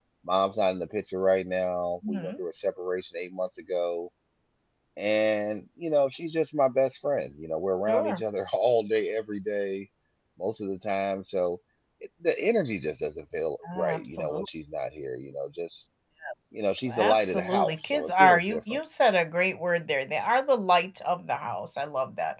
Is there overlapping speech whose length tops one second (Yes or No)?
Yes